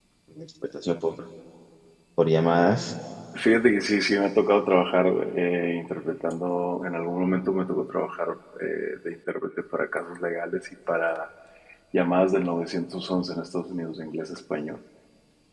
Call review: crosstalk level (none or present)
none